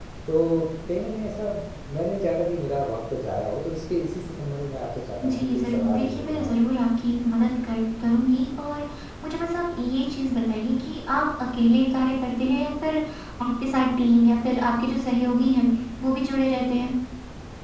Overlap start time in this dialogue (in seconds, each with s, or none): 5.2 s